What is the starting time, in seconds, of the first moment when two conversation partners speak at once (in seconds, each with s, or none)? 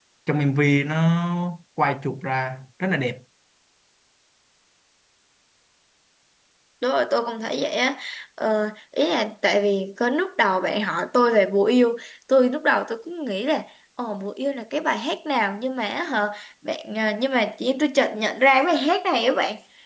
none